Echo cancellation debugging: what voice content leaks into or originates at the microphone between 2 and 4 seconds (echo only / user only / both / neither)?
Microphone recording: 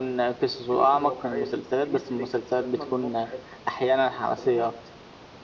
both